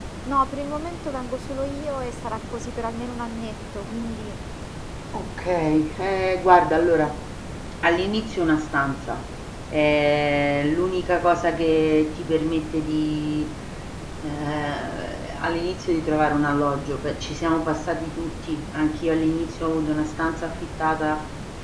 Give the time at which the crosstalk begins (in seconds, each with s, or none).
none